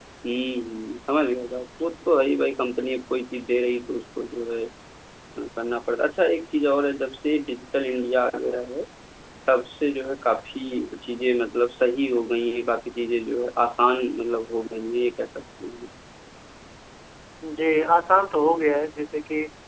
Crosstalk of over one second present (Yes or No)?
No